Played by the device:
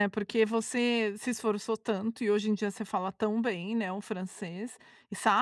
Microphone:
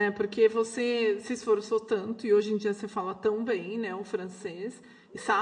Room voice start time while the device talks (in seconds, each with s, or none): none